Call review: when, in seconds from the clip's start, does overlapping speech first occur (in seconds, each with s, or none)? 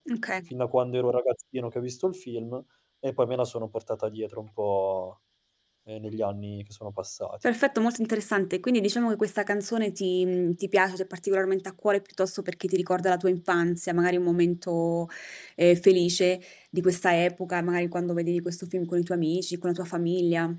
none